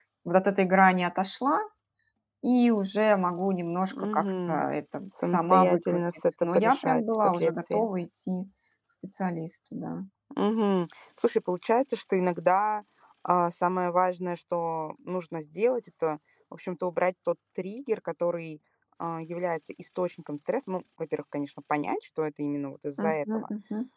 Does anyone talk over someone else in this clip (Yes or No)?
Yes